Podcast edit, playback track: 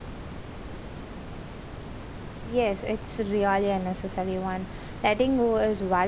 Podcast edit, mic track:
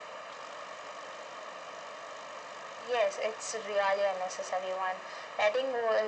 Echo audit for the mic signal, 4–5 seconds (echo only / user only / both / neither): echo only